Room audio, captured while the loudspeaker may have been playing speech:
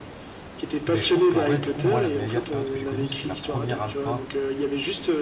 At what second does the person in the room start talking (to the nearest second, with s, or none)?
1 s